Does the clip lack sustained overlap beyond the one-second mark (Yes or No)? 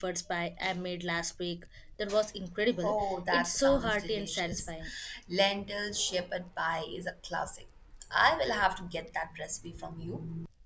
No